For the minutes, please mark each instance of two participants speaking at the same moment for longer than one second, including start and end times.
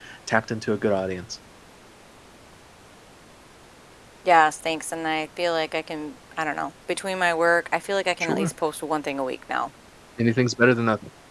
none

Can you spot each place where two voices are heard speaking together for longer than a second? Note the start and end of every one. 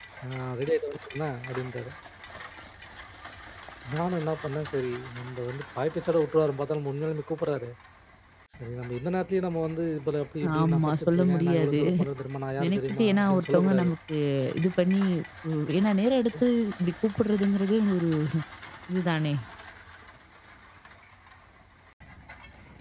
10.6-11.8, 12.6-13.9

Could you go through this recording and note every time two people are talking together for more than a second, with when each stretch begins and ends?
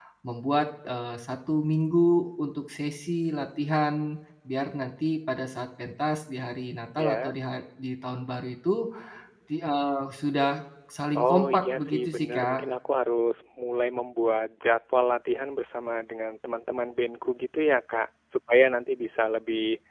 11.2-12.6

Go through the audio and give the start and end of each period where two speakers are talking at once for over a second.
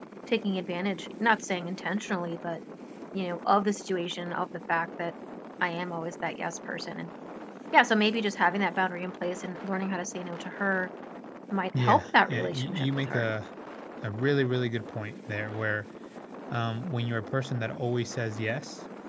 11.8-13.3

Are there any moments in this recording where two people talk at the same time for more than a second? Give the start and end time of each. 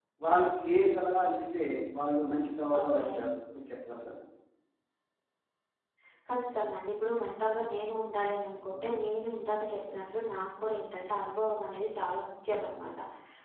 none

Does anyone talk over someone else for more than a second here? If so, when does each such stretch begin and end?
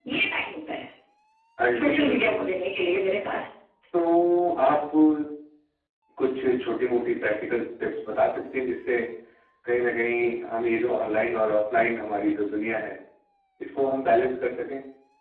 1.8-3.2

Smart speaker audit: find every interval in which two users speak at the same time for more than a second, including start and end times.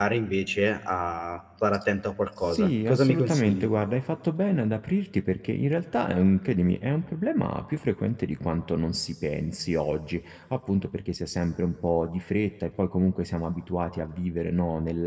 2.4-3.7

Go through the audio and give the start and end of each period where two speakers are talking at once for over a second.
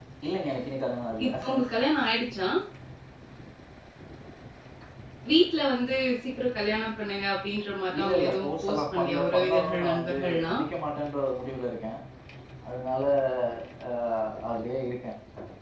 8.0-10.6

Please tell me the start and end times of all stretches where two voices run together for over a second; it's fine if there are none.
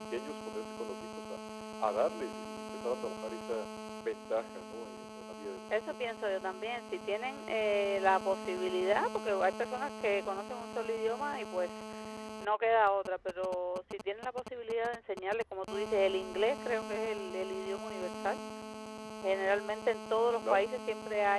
none

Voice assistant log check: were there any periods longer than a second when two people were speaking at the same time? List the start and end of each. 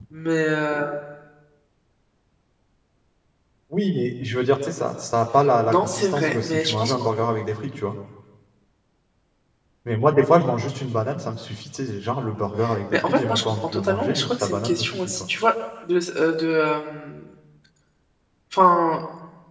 5.7-7.0, 12.9-15.2

